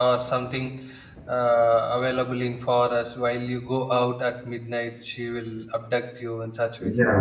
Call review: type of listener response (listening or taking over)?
taking over